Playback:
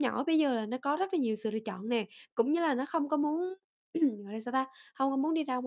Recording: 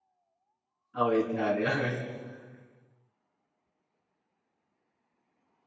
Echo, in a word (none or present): none